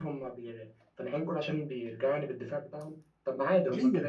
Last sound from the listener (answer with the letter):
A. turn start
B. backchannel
B